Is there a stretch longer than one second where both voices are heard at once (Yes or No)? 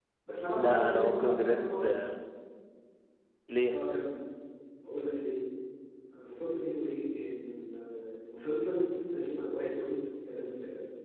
Yes